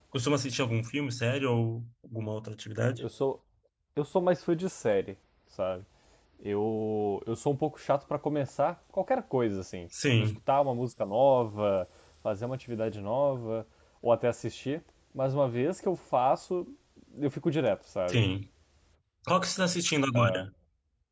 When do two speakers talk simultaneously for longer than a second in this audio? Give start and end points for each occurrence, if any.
none

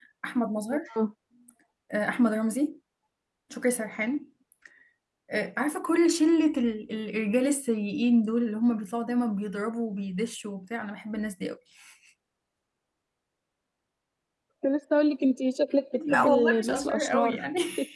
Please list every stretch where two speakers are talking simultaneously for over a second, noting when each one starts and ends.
16.1-17.4

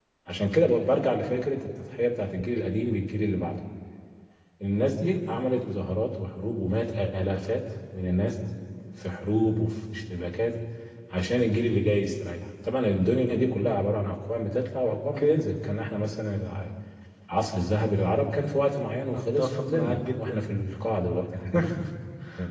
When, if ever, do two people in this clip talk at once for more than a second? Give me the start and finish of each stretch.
19.1-20.4

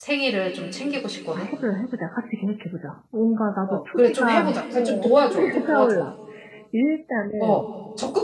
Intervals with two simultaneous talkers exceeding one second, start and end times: 3.7-6.0

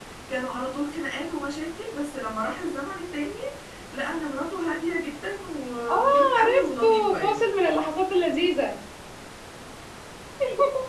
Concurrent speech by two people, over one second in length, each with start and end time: 5.9-7.4

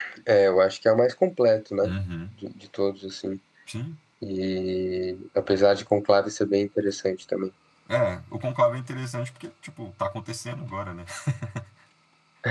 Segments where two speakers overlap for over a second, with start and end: none

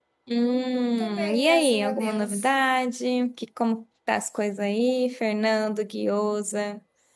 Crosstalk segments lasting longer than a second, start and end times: 1.0-2.5

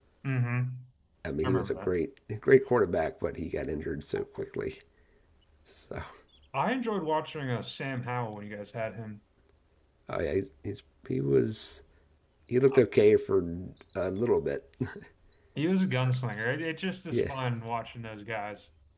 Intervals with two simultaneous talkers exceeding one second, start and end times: none

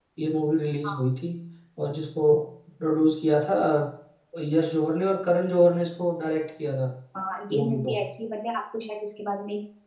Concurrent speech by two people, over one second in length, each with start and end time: none

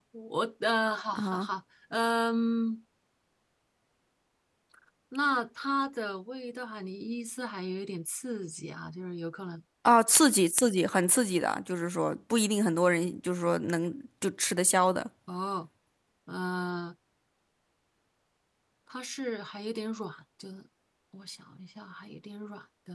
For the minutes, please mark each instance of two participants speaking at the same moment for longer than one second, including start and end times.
none

